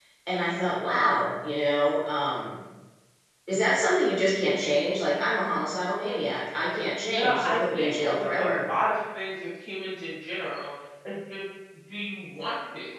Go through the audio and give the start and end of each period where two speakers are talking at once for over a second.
7.0-8.6

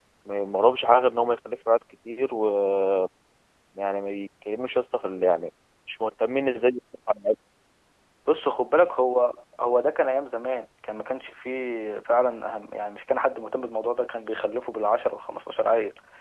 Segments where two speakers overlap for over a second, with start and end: none

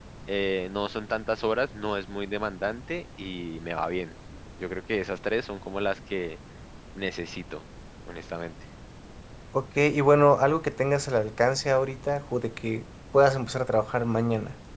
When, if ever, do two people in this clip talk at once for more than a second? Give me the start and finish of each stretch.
none

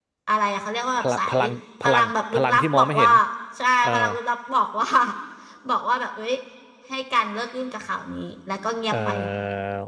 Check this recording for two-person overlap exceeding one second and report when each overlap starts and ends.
1.8-3.1

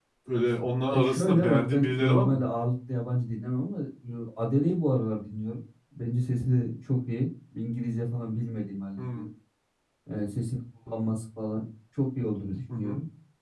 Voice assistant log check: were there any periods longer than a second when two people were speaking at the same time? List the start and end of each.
0.9-2.5

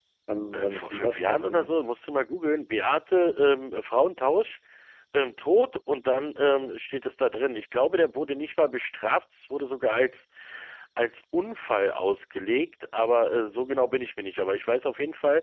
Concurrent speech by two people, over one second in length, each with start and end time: 0.5-1.8

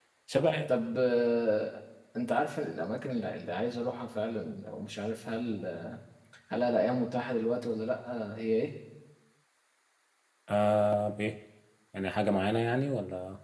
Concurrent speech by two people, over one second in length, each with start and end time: none

